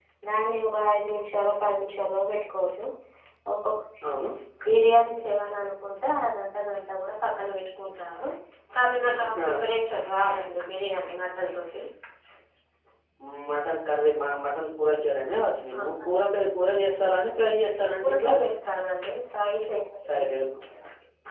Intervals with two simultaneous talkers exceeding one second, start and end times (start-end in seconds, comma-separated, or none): none